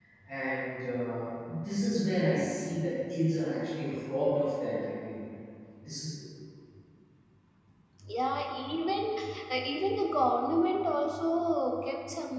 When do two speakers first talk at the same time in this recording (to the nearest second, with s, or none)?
none